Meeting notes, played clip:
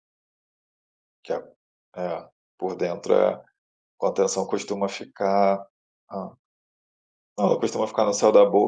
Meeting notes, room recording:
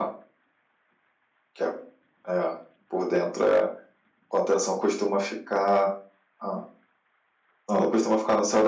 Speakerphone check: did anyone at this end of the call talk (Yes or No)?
No